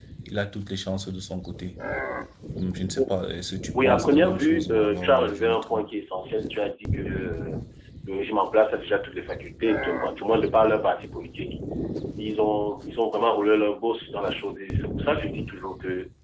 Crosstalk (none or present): present